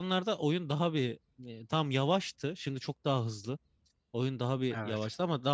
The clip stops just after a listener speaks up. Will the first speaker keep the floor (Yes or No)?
Yes